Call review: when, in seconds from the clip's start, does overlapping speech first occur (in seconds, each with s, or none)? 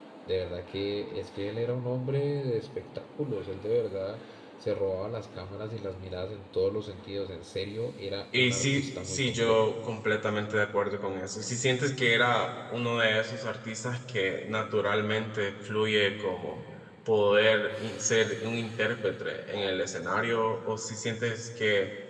8.3 s